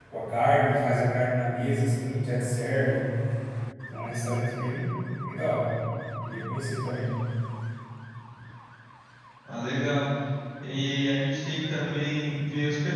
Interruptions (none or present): none